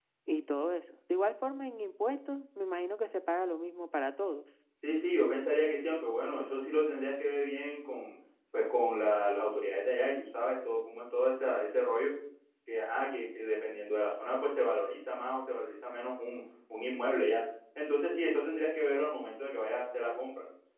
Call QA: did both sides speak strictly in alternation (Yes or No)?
Yes